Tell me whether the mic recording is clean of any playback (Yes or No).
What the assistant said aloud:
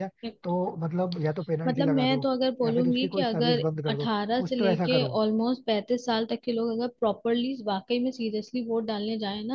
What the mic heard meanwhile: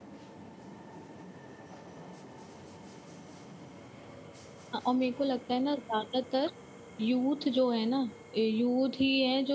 Yes